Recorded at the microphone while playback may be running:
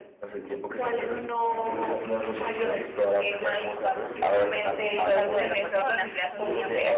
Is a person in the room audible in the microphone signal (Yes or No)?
Yes